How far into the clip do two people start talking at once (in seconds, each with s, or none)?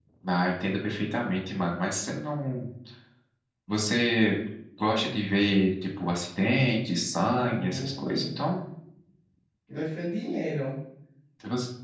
7.3 s